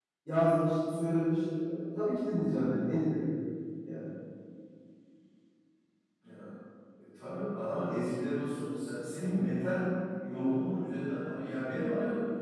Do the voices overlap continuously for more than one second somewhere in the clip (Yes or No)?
No